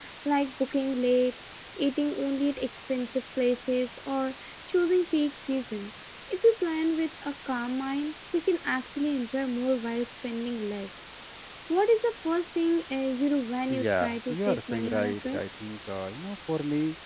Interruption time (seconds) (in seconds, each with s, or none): 13.7 s